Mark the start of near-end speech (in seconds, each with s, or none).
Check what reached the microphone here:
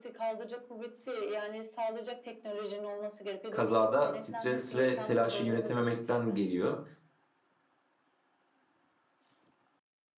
3.5 s